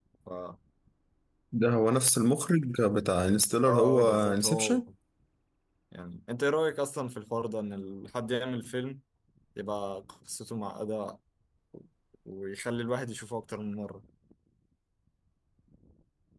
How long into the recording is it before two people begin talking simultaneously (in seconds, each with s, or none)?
3.6 s